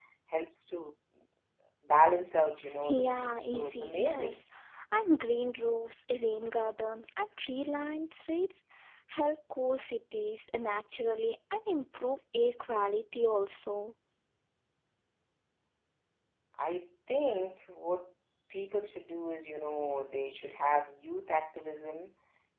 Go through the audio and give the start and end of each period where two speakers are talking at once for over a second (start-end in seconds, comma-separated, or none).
2.9-4.4